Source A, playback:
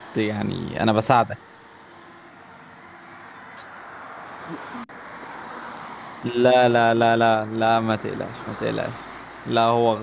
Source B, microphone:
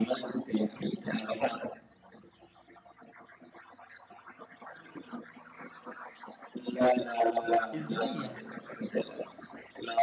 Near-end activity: present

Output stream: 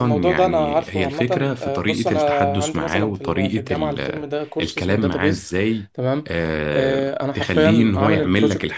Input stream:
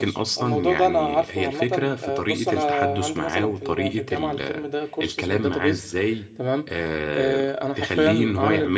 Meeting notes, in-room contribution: none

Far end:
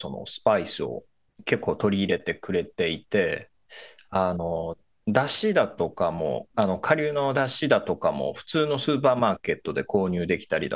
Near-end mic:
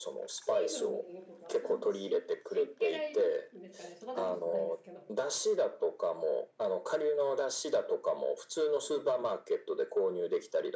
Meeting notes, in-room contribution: present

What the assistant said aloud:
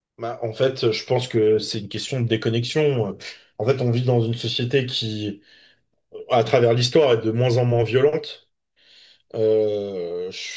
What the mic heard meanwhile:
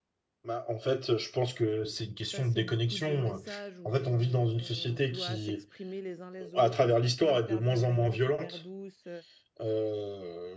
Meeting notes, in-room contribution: present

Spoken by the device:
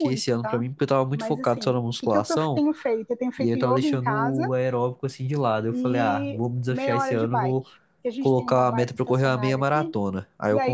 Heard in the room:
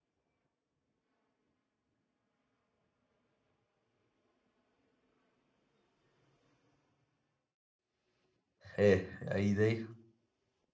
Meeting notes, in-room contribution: present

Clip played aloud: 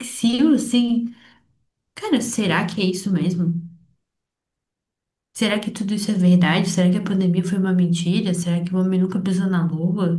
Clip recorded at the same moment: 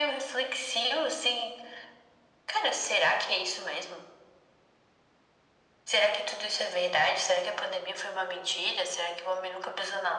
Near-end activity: none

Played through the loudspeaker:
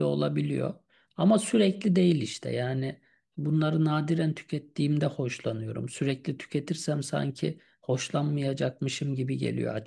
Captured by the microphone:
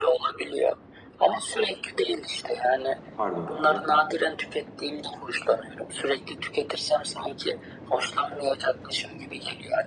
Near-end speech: present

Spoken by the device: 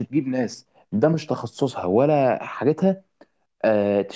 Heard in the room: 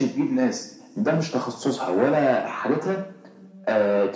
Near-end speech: none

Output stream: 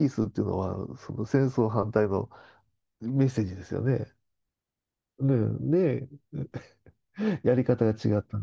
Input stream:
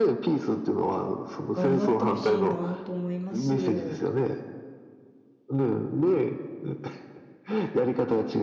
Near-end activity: present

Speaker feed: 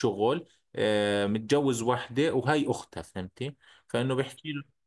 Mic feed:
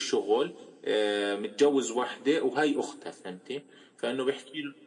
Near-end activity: none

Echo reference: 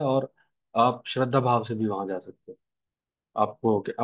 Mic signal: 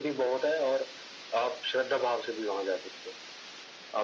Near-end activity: none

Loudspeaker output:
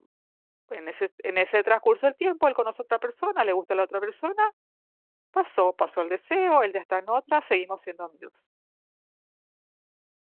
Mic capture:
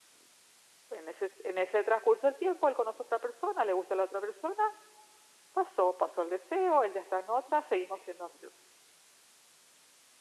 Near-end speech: none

